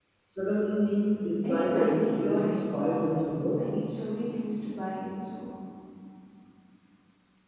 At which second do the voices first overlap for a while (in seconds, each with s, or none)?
1.4 s